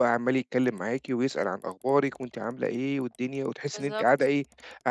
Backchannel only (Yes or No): Yes